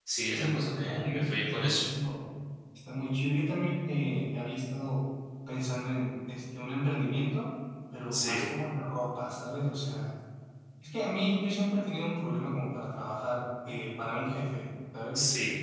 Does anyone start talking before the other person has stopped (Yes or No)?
Yes